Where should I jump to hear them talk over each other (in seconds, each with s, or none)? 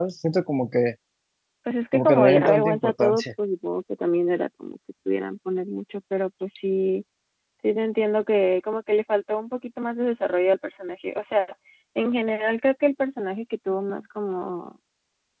1.9 s